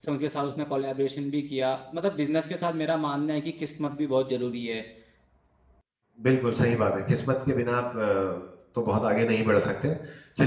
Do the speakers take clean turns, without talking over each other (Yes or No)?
Yes